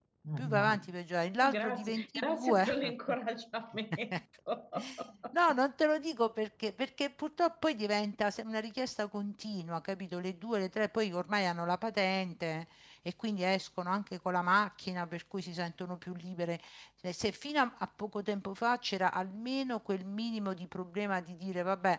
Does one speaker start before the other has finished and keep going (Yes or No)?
Yes